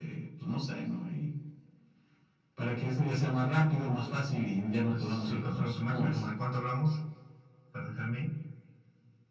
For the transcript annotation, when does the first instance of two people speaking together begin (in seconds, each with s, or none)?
4.9 s